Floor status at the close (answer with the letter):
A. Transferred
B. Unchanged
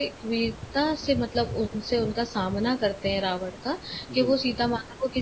B